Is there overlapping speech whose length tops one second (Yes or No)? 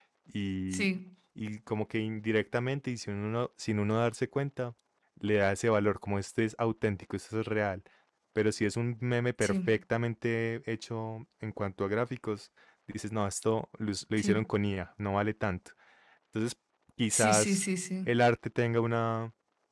No